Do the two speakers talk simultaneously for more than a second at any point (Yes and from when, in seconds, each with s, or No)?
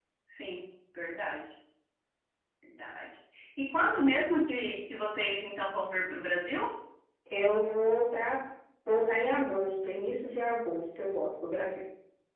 No